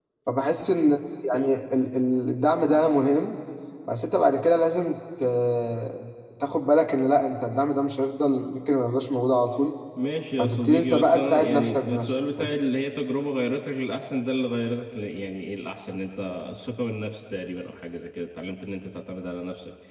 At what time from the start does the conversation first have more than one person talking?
10.4 s

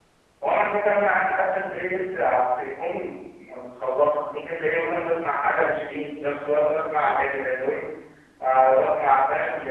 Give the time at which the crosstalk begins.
none

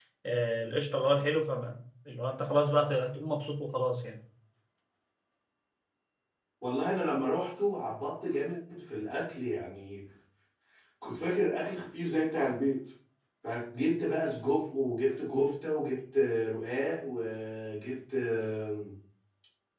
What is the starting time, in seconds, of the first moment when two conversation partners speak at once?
none

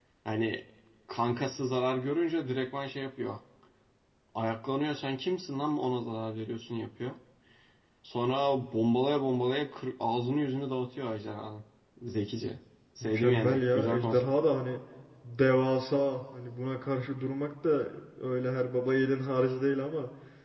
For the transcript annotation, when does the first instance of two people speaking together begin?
13.0 s

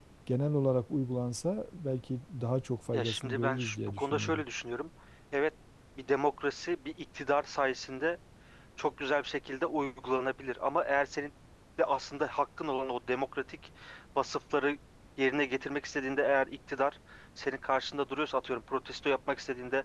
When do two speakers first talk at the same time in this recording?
2.9 s

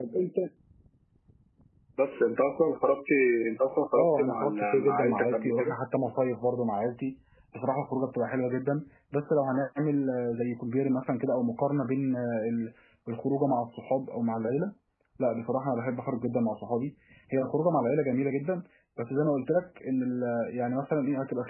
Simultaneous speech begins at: 4.0 s

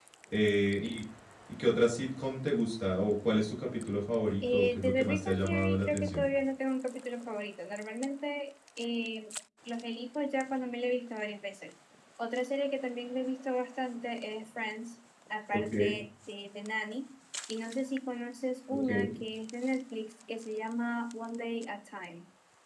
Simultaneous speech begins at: 4.5 s

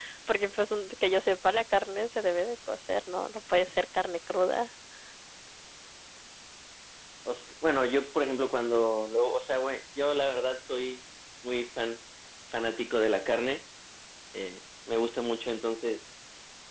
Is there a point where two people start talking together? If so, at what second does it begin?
none

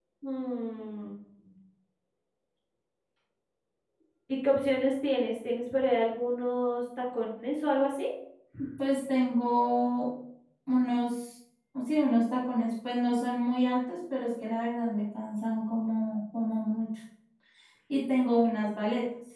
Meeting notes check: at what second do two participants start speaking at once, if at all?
none

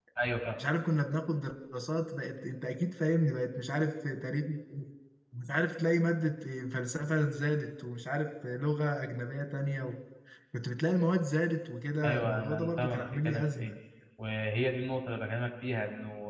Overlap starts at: 12.0 s

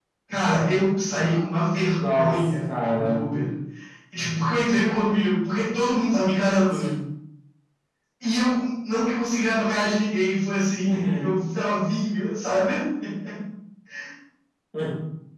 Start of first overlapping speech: 1.9 s

